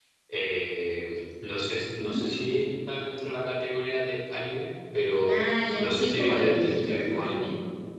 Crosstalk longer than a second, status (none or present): present